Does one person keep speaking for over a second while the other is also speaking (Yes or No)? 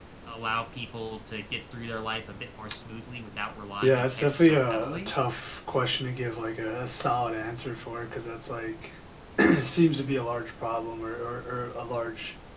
Yes